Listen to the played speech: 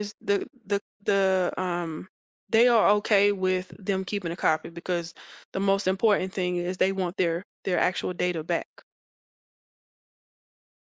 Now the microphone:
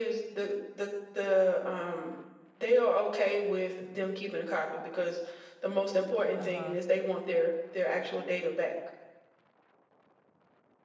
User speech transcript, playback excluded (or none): Uh-huh.